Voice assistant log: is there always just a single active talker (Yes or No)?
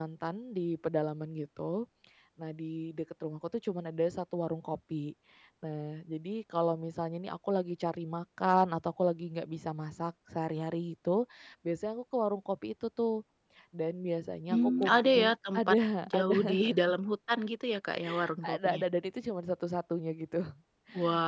No